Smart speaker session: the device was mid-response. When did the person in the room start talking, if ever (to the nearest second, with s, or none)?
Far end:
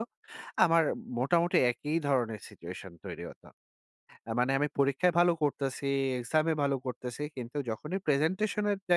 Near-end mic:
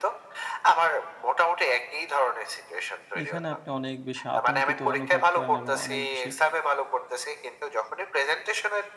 3 s